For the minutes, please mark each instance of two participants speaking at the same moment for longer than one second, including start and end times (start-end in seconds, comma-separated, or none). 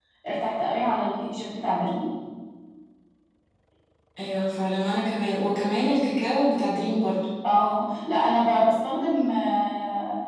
none